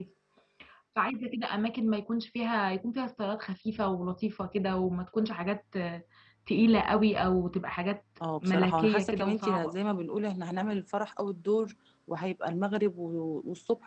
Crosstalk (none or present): present